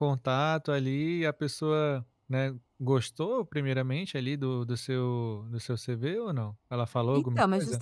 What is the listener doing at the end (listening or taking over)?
taking over